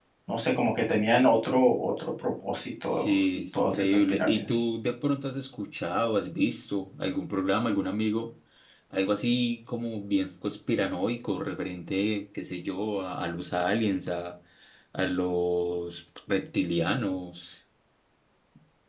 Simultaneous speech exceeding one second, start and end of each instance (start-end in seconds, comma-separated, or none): 2.9-4.6